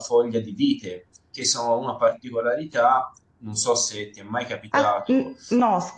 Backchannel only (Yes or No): No